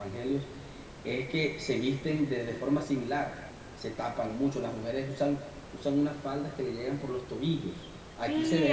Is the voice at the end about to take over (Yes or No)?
Yes